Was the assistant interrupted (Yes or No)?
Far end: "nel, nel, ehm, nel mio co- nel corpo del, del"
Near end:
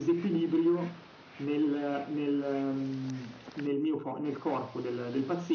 No